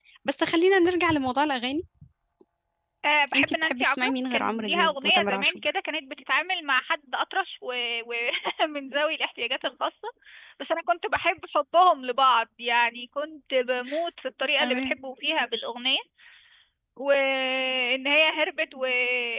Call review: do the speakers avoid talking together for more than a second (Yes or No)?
No